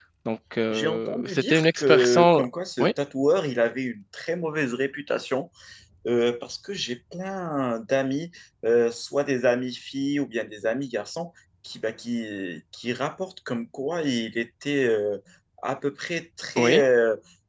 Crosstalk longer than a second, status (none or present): present